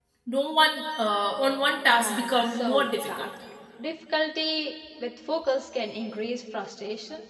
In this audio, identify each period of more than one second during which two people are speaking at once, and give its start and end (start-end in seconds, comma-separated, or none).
1.9-3.2